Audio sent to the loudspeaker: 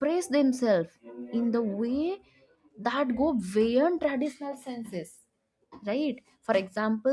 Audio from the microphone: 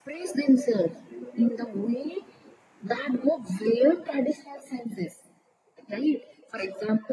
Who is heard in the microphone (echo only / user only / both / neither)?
echo only